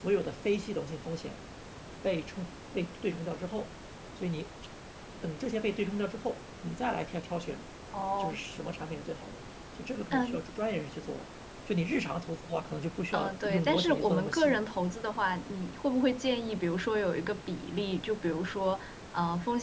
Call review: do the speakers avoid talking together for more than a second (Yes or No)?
No